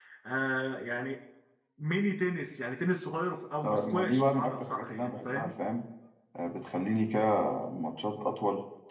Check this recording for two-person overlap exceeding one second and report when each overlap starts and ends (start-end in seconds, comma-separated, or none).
3.6-5.6